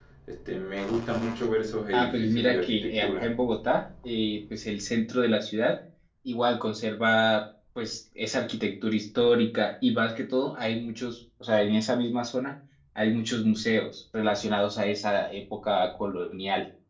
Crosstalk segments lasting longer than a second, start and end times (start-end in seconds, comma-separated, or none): 1.9-3.3